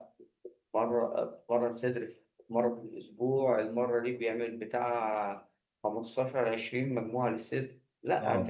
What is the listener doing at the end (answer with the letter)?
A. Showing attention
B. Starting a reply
A